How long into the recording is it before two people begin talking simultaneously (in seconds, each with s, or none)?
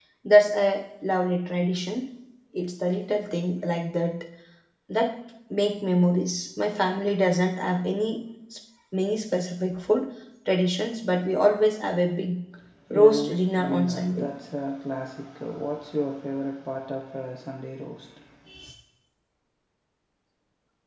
12.9 s